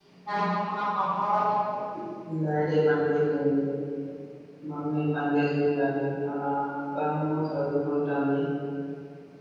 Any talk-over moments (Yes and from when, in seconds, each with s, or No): No